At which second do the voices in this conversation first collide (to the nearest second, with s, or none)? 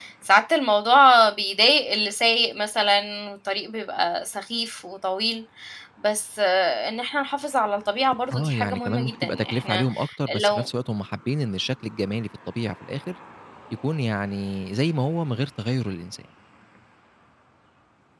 8 s